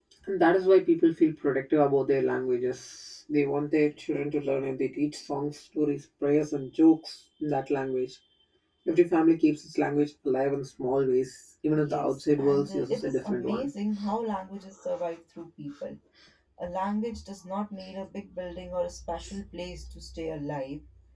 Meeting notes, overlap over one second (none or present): present